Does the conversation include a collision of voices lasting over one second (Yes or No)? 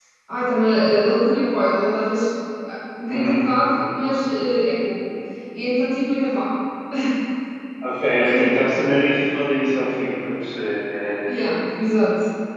No